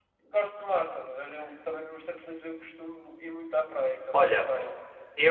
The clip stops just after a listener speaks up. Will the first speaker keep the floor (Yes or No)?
No